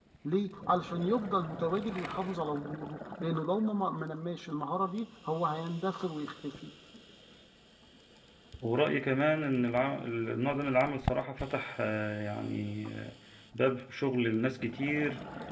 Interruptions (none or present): none